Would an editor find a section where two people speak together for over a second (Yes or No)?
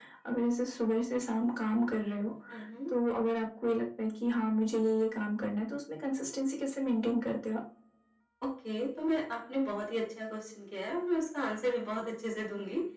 No